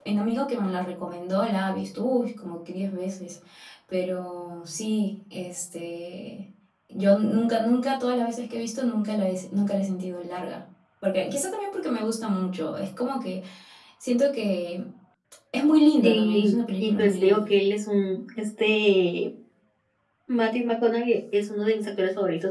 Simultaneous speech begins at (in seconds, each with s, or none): 16.0 s